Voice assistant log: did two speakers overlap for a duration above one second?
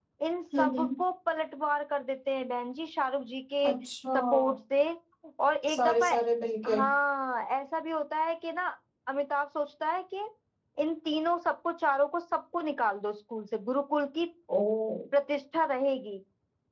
No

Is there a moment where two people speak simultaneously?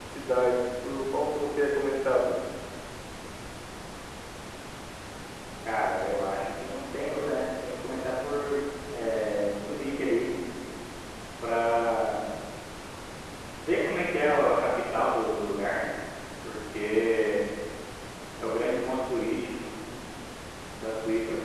No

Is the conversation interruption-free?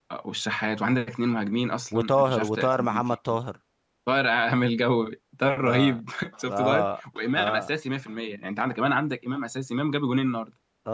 No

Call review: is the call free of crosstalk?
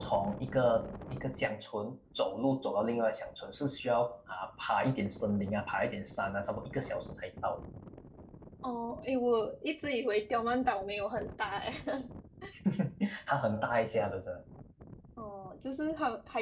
Yes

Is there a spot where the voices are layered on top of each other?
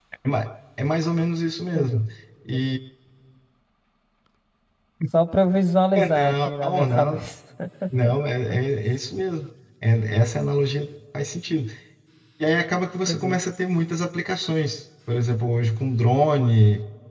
Yes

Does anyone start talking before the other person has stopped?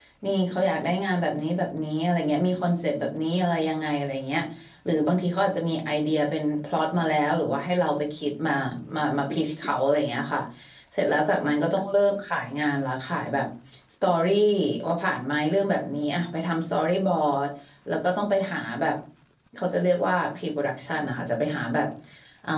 No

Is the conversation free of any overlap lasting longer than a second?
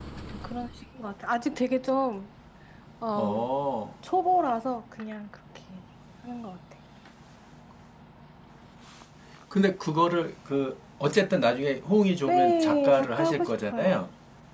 No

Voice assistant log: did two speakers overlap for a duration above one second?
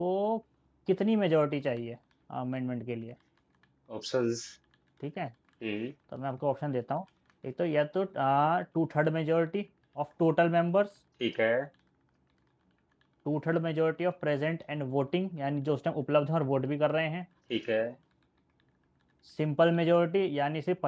No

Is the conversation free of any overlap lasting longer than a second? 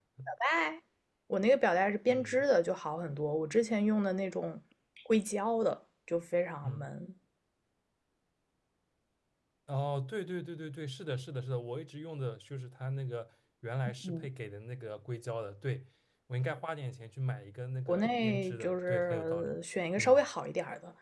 No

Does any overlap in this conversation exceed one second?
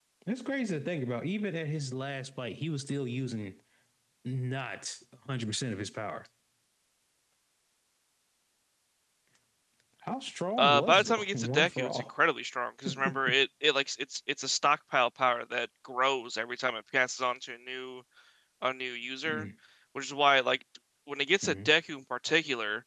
Yes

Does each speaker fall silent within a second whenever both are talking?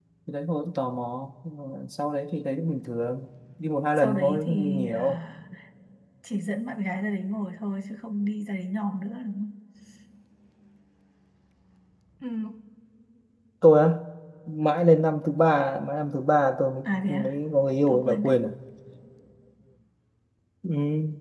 No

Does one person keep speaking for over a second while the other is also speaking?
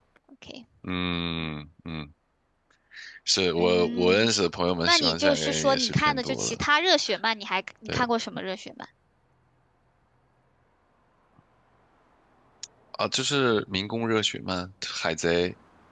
Yes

